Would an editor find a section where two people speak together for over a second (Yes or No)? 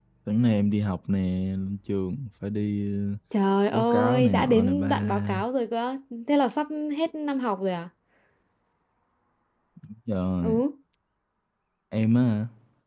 Yes